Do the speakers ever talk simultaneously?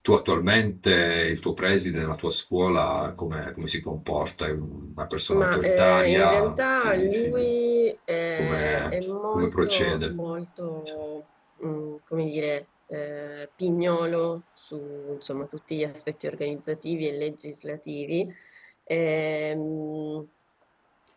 Yes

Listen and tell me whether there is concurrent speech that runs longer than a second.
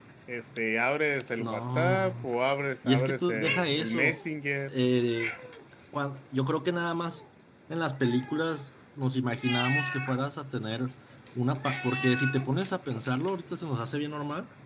Yes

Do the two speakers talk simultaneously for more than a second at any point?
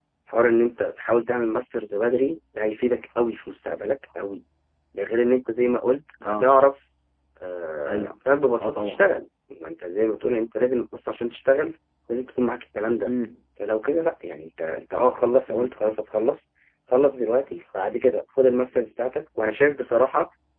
No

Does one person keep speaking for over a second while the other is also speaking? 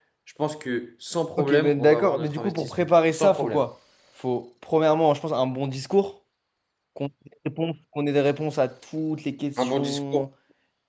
Yes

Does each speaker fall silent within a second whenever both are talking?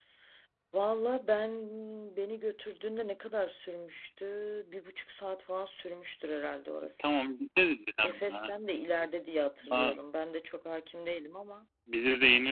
Yes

